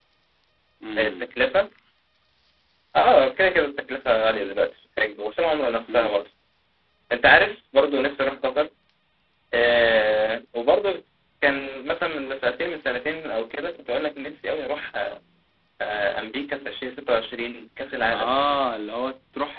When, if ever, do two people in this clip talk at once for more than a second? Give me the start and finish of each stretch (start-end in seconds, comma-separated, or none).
none